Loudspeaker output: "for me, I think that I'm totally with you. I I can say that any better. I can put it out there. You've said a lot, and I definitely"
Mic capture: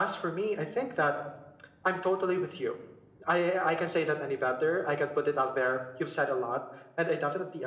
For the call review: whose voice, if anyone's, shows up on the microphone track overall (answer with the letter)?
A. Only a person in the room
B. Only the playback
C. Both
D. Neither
B